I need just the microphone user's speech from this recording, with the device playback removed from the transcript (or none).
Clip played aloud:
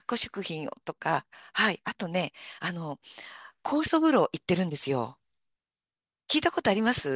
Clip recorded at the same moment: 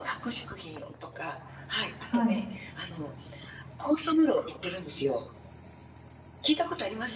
はい。